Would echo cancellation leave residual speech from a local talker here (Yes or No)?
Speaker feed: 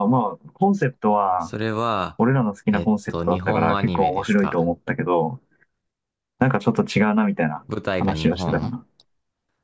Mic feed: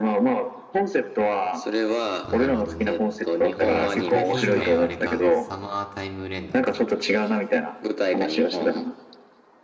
Yes